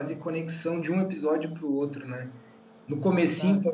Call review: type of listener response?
listening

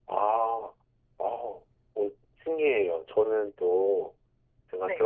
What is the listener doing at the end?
listening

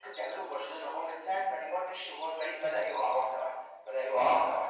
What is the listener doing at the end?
listening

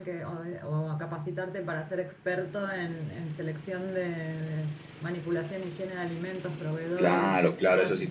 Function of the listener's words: taking over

